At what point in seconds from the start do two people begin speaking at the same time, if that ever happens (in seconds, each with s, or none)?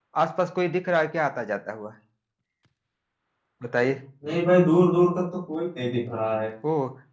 none